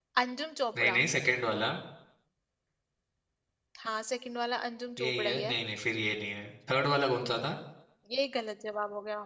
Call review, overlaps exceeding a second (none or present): none